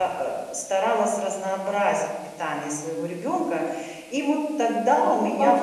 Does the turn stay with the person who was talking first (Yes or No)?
No